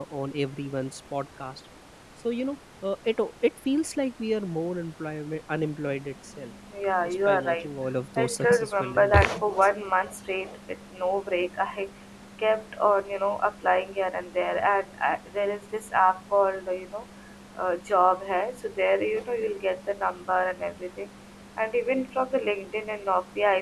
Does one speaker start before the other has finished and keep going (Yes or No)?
Yes